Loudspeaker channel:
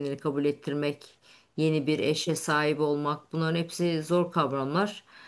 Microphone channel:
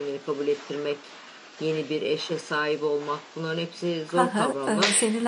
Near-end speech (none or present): present